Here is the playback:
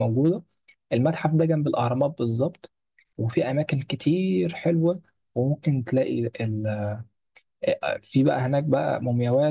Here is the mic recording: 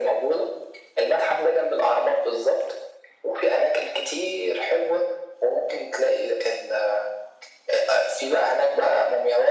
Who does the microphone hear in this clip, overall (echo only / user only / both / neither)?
echo only